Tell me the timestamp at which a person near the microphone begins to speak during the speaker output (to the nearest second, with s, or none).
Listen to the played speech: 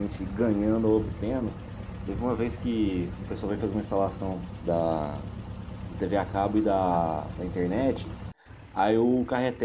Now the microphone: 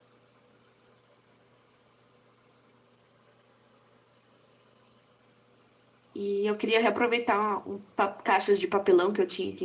6 s